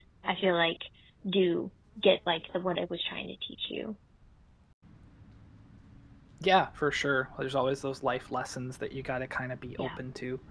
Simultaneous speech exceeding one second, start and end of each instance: none

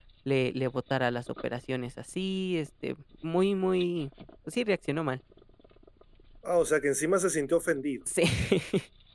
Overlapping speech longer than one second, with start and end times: none

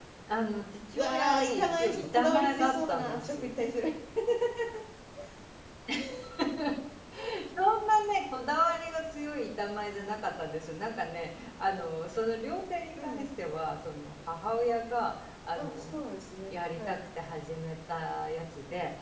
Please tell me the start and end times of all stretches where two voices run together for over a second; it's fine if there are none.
0.9-3.6

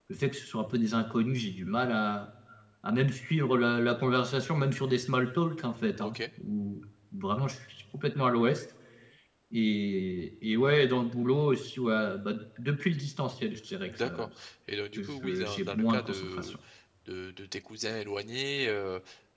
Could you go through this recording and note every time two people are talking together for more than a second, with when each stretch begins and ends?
15.0-16.5

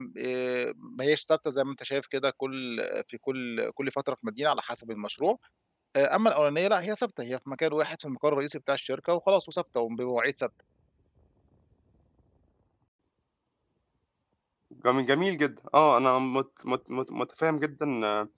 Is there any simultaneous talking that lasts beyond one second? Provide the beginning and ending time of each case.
none

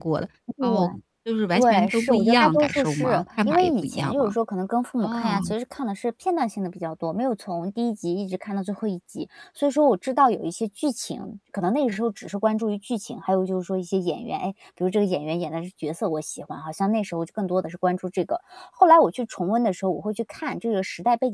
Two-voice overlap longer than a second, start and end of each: 1.5-4.3

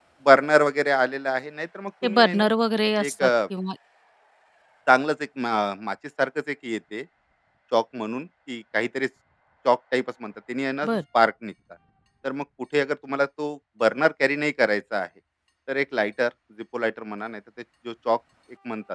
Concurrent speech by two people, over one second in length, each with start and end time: none

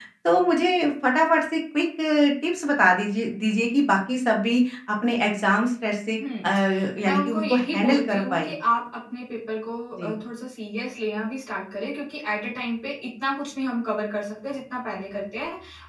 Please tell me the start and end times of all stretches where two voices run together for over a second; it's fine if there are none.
7.0-8.5

